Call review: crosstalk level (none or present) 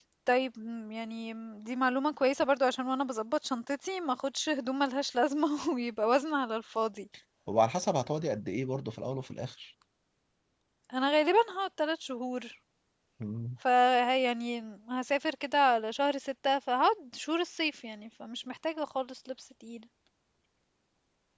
none